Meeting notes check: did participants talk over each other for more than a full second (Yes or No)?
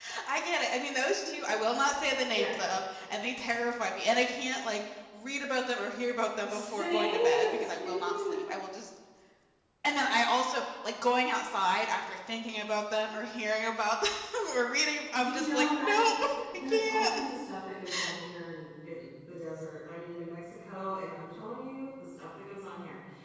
Yes